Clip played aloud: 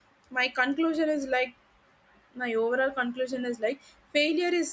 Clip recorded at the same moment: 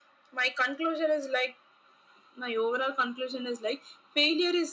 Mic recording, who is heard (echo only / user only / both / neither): echo only